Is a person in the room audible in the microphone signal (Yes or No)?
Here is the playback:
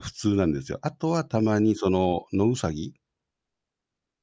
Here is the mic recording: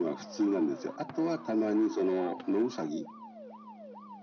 No